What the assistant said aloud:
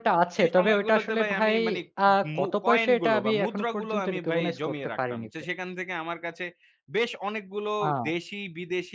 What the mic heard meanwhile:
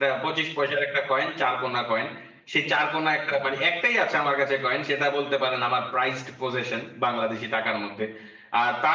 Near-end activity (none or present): present